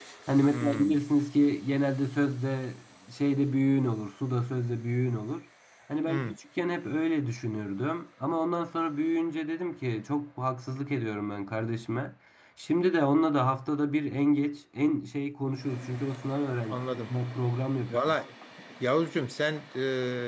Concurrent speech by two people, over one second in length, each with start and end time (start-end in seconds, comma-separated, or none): none